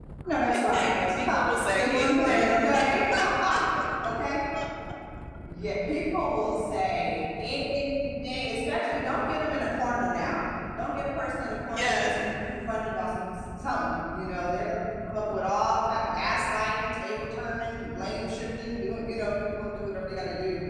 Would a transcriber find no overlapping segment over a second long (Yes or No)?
No